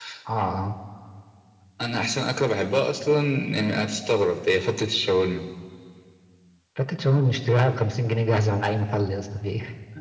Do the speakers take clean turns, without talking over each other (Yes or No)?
Yes